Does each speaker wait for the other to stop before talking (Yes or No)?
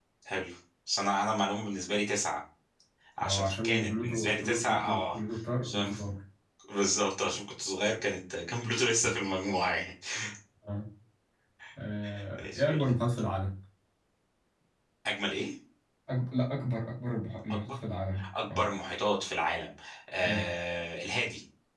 No